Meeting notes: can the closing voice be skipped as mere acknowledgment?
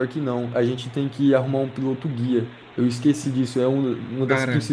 Yes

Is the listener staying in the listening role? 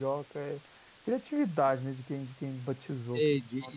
No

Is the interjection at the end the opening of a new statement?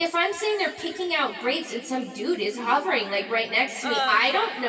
No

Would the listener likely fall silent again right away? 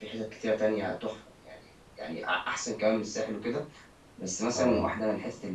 Yes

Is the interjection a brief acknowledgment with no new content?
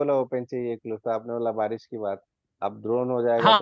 No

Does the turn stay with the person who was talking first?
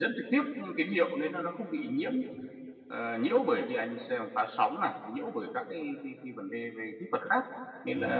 Yes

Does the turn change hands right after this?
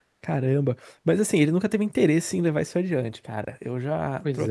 No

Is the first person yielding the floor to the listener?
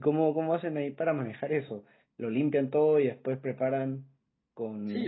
Yes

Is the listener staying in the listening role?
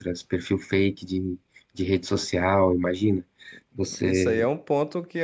No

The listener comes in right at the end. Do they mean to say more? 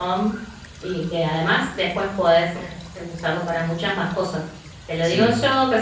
No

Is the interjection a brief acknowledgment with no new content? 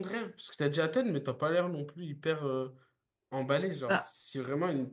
Yes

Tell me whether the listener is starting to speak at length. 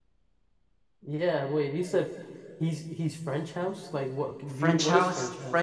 Yes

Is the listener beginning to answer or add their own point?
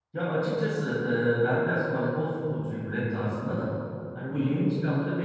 No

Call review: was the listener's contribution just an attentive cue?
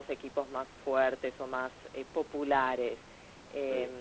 Yes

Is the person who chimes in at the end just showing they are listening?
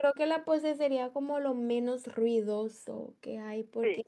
Yes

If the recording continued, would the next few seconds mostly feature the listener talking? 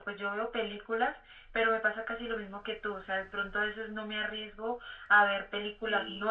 No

